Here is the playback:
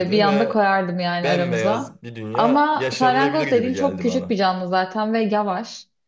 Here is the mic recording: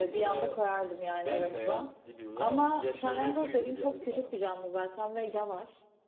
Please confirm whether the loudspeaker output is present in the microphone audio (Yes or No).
Yes